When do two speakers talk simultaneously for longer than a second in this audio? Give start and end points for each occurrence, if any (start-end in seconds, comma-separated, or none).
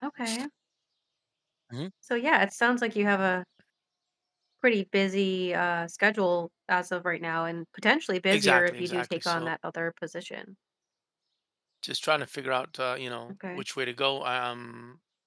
8.3-9.5